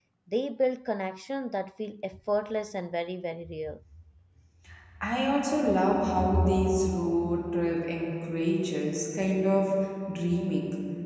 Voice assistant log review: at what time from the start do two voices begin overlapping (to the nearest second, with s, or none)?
none